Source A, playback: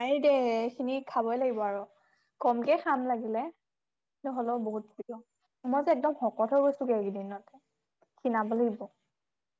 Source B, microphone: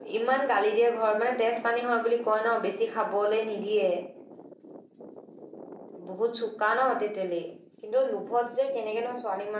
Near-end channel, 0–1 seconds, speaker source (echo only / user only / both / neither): user only